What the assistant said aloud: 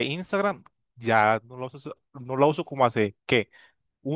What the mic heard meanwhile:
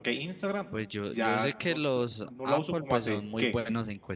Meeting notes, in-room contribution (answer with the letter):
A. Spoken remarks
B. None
A